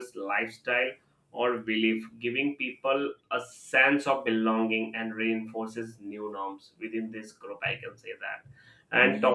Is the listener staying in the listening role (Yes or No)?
Yes